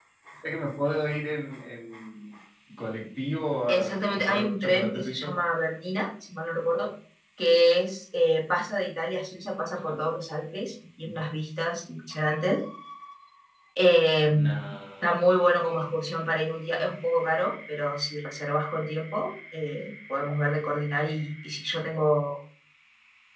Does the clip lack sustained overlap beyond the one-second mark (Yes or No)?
No